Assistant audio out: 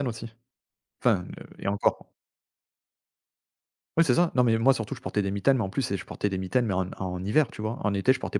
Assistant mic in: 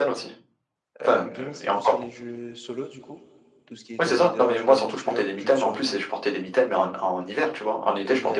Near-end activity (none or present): present